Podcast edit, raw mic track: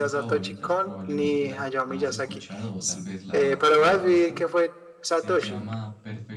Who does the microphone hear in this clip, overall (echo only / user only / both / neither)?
both